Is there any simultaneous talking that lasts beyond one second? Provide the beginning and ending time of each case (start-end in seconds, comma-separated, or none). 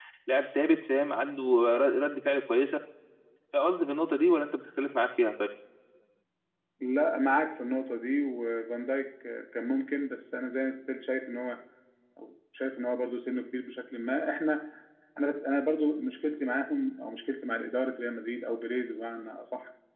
none